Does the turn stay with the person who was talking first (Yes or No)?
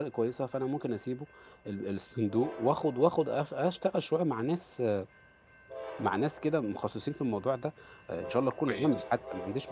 Yes